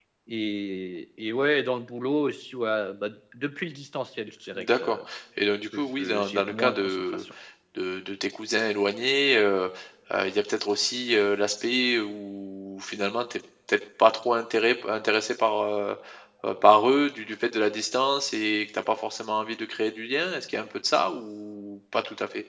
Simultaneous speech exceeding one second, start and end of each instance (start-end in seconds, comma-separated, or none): 5.7-7.2